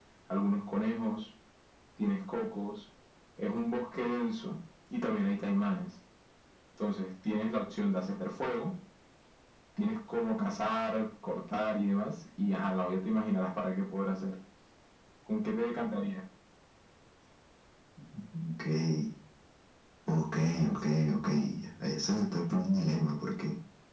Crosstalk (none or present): none